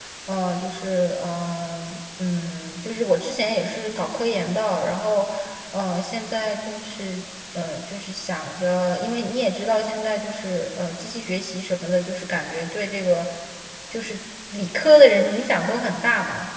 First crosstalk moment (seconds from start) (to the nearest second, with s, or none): none